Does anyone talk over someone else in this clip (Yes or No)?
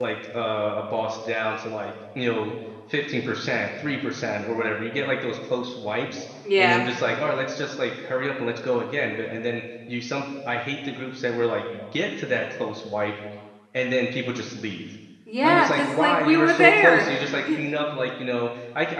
Yes